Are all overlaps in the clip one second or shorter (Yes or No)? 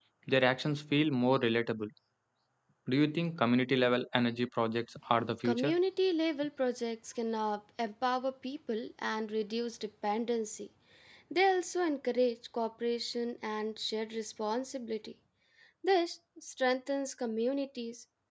Yes